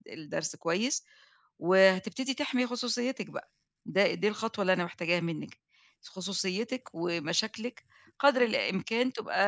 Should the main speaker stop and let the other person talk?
No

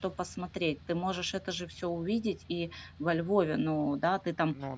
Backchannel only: Yes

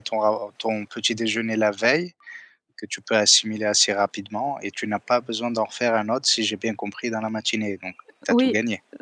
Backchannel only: No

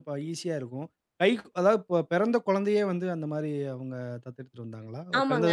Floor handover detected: Yes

